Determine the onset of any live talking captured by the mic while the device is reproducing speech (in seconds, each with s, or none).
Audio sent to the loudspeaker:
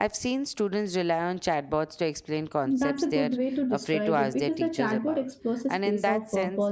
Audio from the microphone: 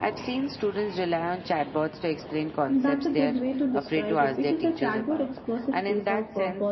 none